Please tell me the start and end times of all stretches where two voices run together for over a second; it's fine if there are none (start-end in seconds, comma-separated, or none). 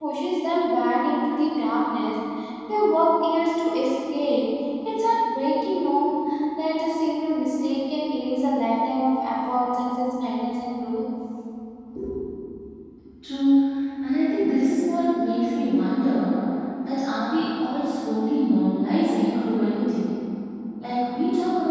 none